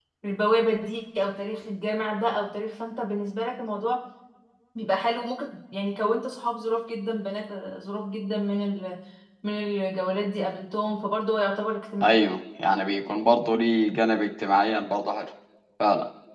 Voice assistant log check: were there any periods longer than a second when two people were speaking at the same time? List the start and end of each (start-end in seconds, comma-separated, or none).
none